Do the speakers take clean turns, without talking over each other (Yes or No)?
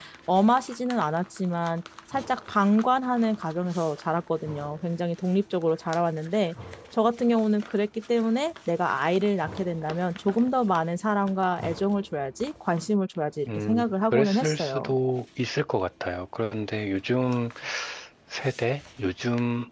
No